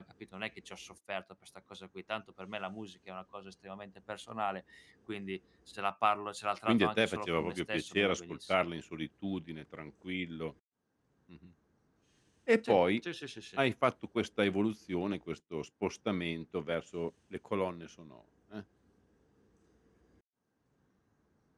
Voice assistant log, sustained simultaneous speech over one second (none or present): present